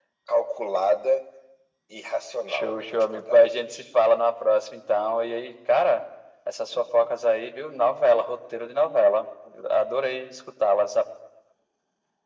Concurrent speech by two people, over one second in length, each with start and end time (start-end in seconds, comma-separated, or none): 2.5-3.8